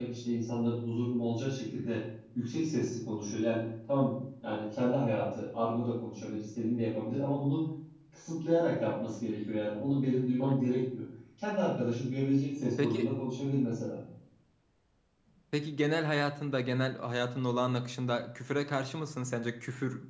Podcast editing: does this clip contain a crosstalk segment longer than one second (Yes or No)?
No